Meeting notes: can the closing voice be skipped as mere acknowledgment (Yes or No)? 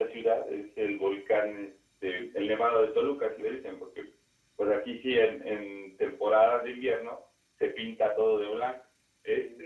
Yes